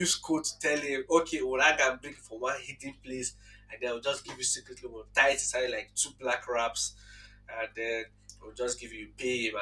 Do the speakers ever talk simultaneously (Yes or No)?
No